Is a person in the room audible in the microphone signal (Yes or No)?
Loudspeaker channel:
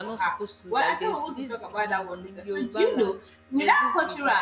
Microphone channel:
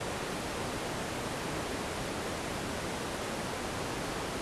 No